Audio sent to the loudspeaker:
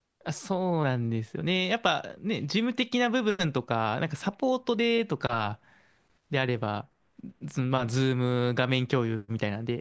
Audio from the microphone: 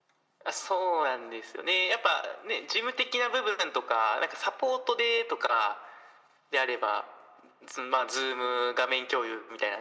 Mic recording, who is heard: echo only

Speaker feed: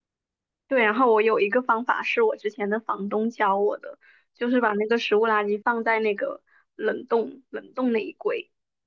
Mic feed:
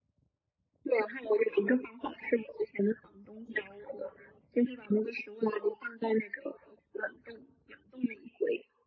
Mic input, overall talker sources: echo only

